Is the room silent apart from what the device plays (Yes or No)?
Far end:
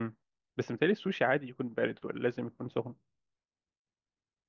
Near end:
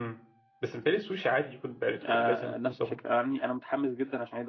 No